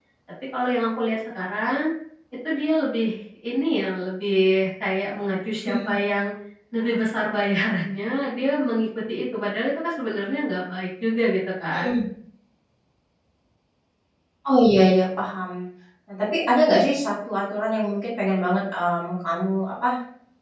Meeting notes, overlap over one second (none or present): none